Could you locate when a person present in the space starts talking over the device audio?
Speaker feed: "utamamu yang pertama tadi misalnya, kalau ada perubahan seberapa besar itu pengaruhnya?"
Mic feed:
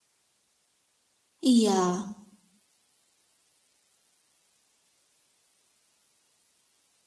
1.4 s

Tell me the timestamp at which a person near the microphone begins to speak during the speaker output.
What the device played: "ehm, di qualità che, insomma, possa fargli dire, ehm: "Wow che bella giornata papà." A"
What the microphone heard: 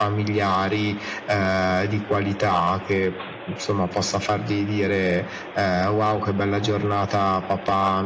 none

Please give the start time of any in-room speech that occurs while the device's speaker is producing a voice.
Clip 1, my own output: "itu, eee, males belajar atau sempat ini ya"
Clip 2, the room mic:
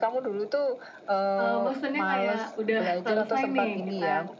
1.4 s

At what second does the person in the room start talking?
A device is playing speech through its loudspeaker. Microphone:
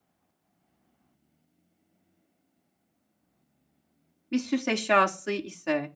4.3 s

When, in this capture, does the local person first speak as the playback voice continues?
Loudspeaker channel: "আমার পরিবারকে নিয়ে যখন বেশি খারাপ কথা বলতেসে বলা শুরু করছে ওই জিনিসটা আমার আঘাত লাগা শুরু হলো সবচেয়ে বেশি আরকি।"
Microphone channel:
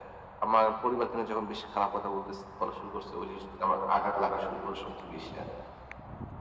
none

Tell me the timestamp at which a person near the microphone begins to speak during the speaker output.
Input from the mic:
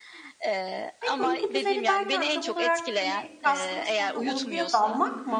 1.0 s

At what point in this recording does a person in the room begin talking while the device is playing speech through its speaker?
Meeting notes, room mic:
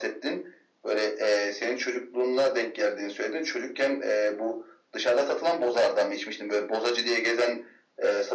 none

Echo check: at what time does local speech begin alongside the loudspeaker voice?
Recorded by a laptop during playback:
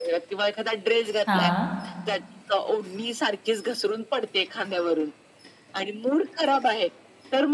1.3 s

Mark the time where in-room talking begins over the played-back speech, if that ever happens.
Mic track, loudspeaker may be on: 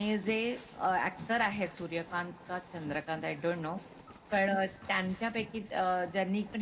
none

